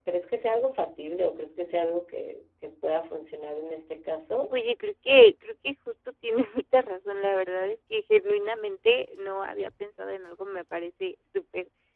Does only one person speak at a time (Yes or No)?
Yes